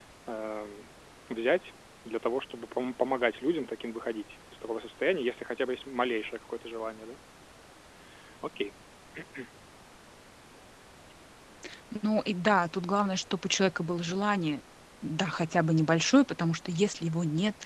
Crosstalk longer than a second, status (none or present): none